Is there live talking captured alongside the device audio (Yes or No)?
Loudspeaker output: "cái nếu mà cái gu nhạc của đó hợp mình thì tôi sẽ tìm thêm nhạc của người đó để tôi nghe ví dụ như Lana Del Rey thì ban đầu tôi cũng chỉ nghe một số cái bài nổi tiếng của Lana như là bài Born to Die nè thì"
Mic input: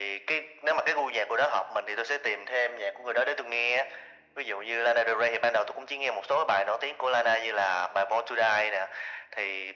No